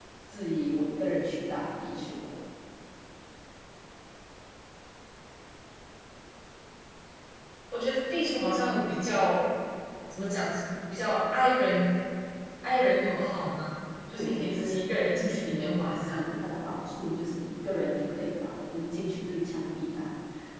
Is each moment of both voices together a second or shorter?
No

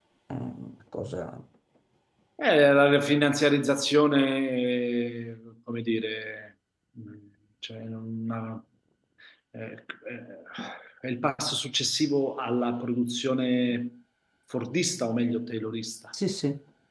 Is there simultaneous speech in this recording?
No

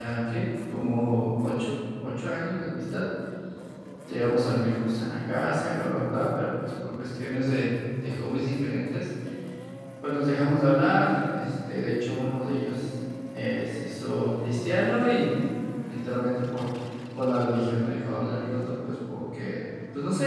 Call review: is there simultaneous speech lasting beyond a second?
No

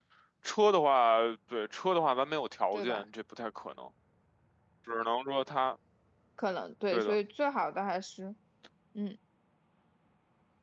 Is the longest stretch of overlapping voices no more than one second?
Yes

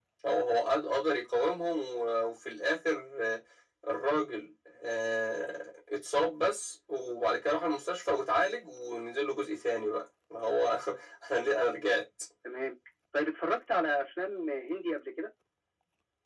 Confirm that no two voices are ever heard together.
Yes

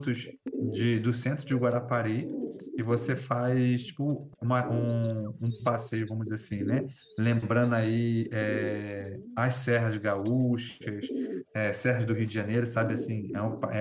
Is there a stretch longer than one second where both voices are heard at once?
No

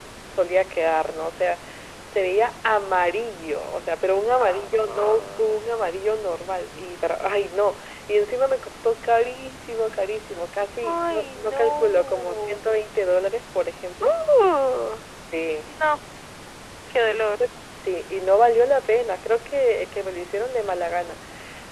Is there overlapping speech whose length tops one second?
Yes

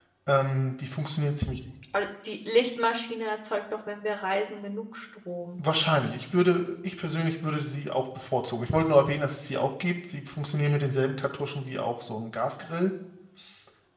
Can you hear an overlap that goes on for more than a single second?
No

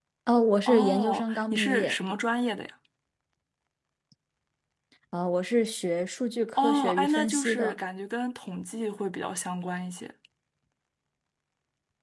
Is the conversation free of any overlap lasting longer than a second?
No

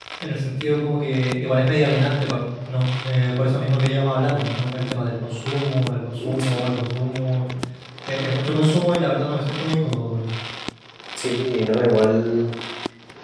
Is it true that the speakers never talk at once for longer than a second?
Yes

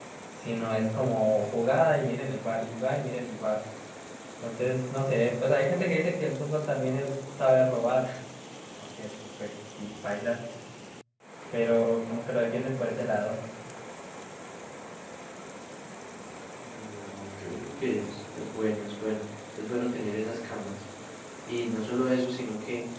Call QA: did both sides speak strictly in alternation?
Yes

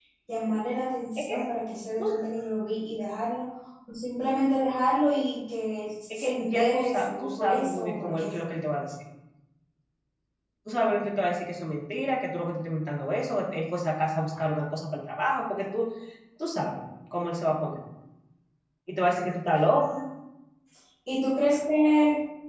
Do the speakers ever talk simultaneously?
Yes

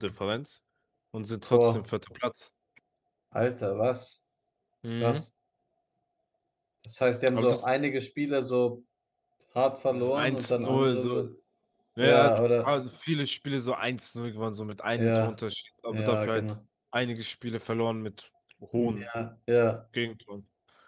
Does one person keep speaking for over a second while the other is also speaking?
Yes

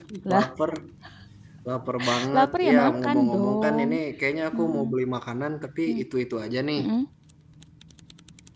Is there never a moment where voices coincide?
No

